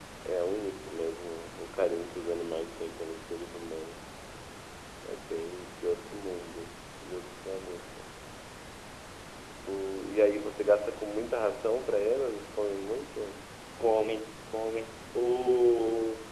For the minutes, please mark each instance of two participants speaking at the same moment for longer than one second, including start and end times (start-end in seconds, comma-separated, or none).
none